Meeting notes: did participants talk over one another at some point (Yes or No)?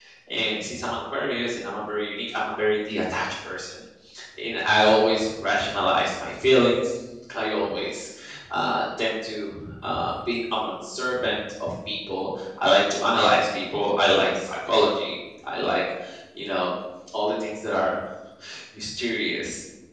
No